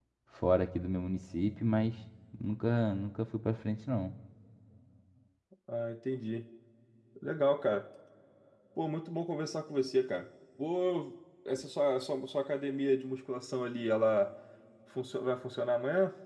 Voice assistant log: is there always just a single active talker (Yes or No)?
Yes